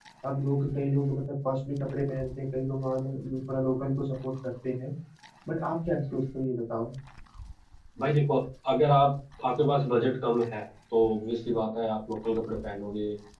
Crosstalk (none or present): none